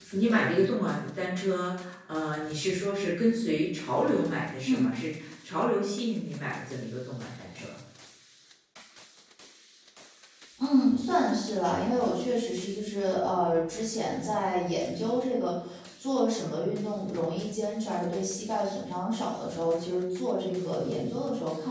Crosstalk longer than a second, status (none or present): none